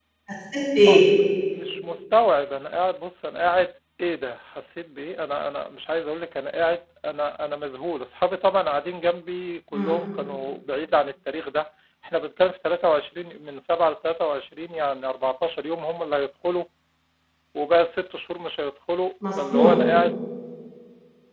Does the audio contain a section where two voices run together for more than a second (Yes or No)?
No